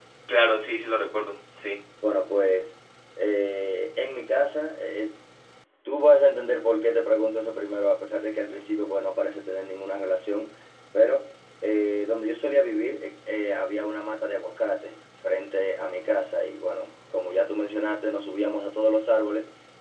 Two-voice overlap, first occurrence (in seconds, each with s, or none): none